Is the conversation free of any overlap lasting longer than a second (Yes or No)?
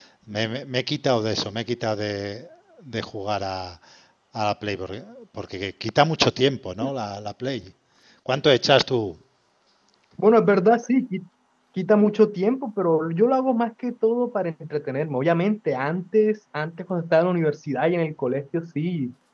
Yes